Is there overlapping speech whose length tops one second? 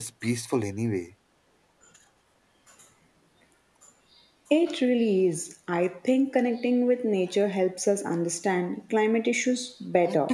No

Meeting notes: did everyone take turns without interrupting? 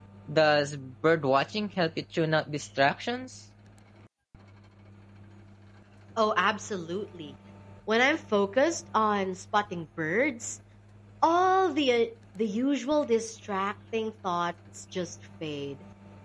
Yes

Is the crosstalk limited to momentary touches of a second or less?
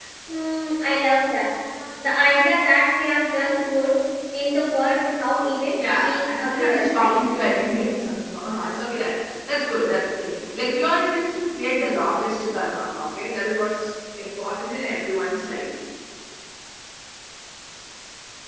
No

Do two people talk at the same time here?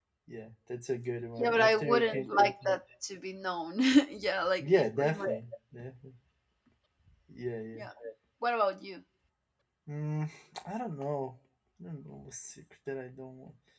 Yes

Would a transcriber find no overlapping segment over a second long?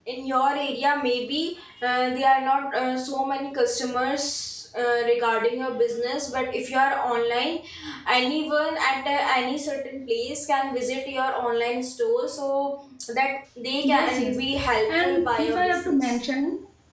No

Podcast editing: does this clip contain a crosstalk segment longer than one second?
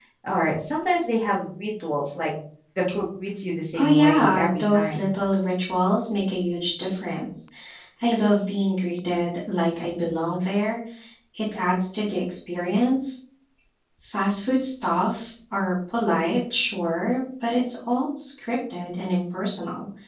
Yes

